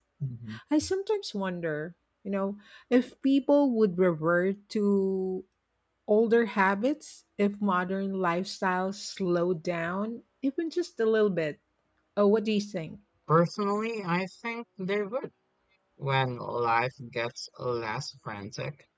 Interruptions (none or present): none